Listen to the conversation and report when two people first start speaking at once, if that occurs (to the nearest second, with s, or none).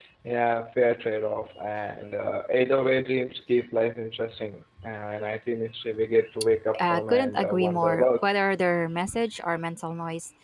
7 s